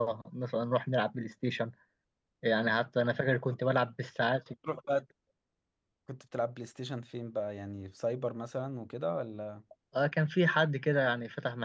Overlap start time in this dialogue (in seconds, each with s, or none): none